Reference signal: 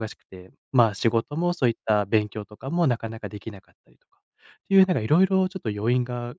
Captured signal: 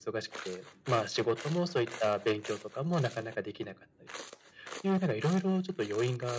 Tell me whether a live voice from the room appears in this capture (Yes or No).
No